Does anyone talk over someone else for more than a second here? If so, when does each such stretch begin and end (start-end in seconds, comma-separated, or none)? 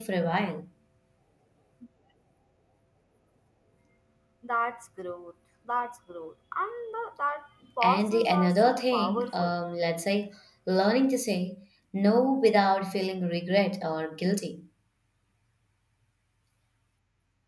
7.8-9.5